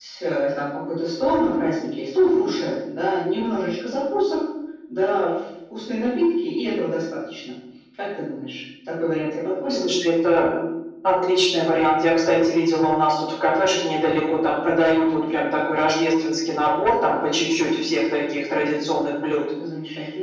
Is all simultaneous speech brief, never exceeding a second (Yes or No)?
Yes